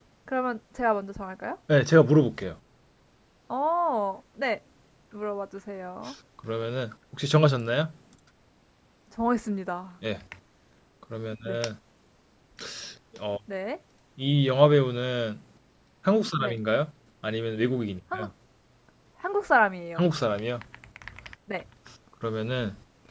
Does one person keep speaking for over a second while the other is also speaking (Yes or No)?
No